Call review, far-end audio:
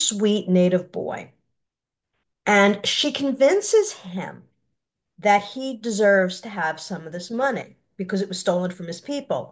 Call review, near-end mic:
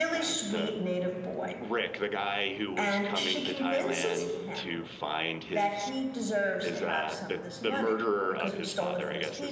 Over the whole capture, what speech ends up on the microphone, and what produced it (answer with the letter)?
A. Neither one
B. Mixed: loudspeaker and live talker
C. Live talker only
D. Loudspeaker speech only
B